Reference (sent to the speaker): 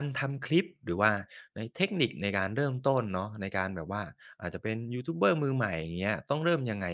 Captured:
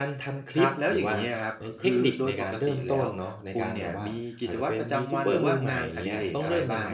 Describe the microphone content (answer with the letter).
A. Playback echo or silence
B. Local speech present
B